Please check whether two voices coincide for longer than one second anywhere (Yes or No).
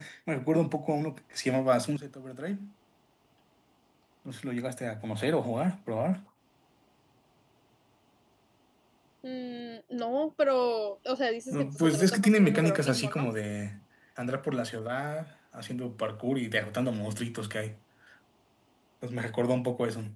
Yes